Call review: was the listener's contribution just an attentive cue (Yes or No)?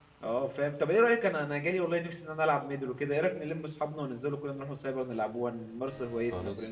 No